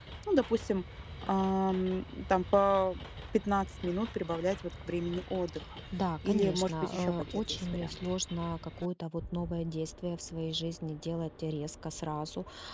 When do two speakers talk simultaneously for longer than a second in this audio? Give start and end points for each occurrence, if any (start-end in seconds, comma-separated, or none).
6.3-8.0